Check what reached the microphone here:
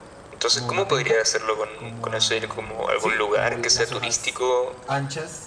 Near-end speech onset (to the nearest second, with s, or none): 0 s